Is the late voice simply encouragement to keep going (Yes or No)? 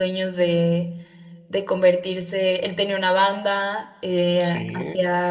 Yes